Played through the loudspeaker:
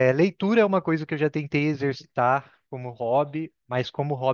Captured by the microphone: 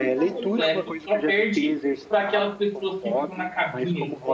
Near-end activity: present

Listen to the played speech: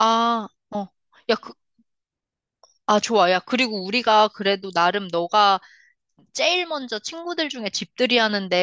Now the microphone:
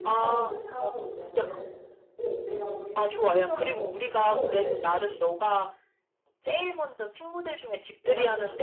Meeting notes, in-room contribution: present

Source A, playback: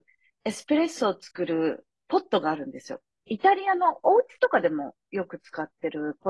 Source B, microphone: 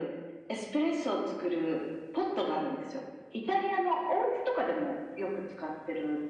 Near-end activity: none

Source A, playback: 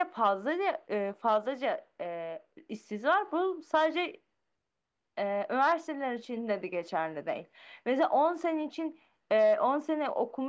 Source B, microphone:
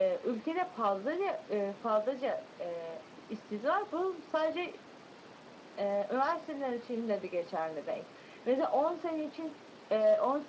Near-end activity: none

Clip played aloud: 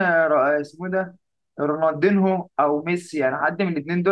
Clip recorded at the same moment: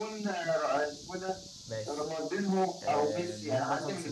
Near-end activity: present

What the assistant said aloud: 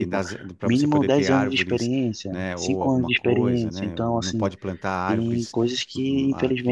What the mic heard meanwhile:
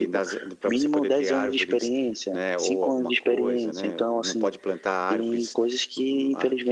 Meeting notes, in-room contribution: none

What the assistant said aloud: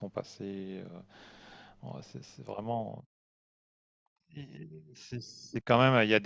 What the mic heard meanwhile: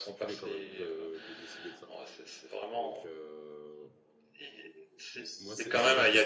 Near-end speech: present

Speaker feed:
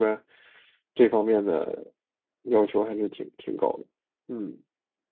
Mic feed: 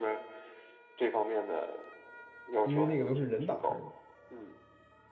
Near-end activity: present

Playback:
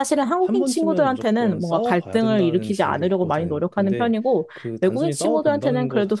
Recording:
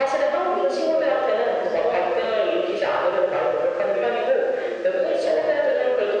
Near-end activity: none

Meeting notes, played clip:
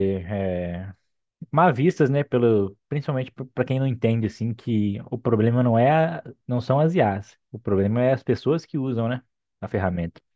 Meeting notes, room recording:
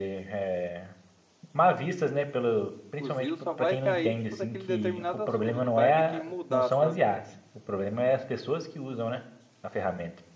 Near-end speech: present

